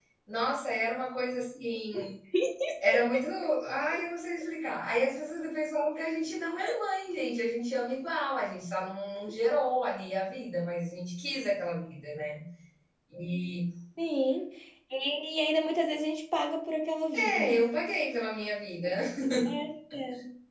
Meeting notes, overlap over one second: none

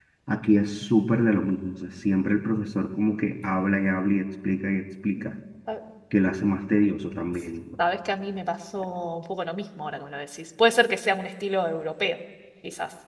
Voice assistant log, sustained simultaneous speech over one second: none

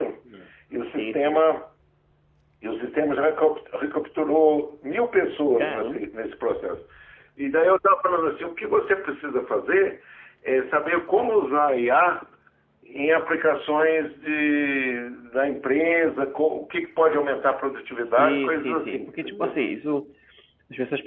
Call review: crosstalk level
present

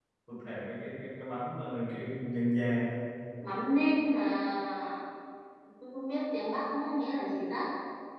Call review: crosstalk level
none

